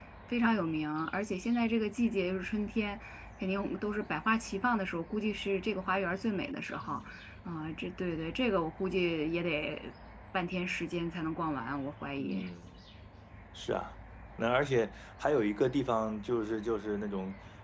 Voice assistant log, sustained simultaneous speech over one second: none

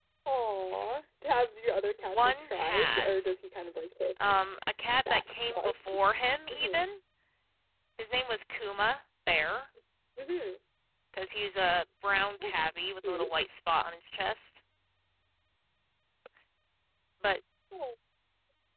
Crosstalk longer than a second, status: present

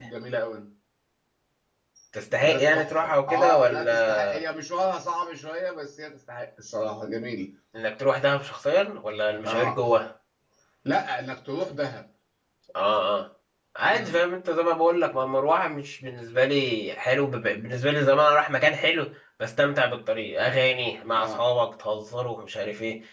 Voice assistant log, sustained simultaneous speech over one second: present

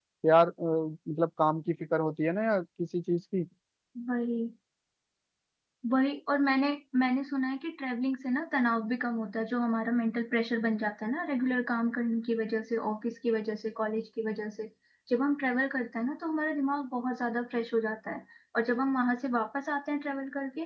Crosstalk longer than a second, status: none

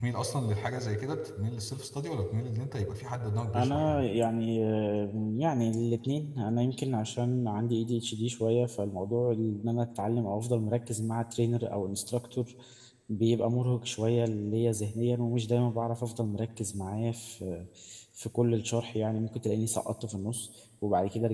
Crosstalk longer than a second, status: none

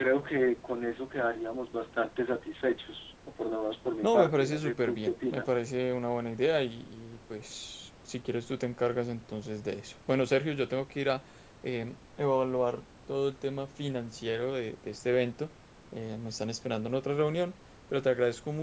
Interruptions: present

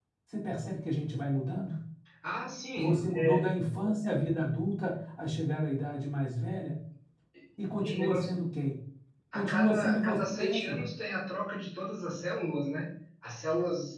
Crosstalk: present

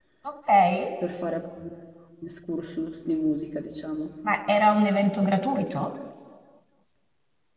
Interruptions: none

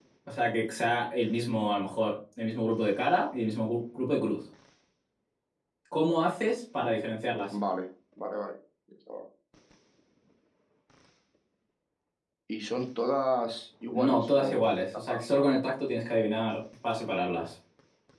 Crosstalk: present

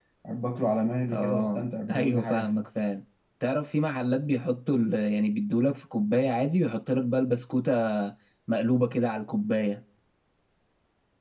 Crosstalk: present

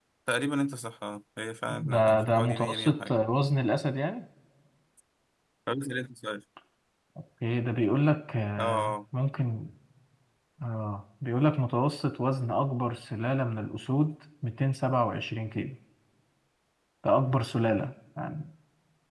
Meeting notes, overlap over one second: present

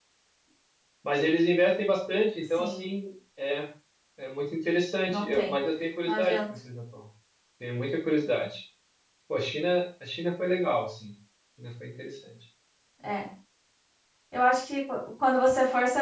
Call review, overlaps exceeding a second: none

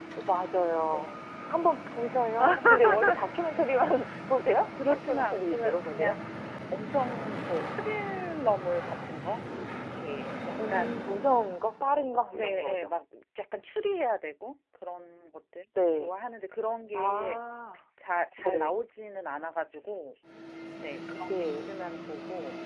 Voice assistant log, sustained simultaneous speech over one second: present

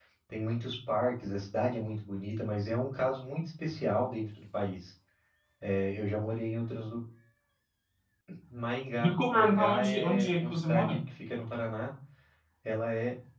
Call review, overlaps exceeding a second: present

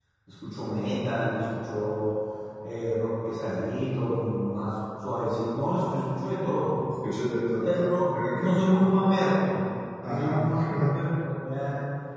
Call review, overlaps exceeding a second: present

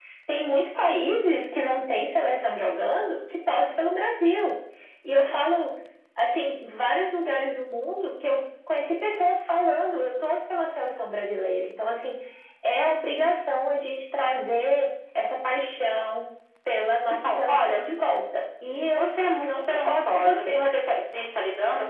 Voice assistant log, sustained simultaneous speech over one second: present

